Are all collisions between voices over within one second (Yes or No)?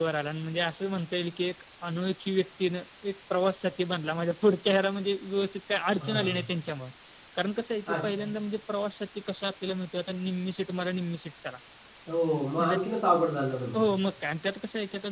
Yes